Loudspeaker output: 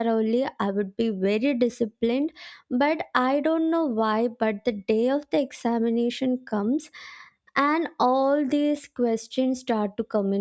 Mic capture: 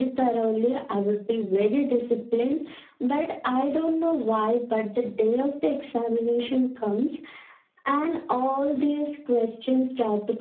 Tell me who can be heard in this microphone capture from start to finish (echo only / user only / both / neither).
echo only